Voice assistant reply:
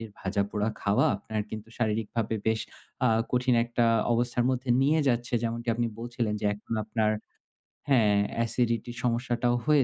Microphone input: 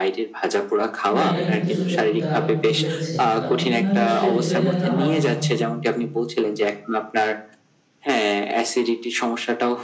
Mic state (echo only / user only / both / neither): both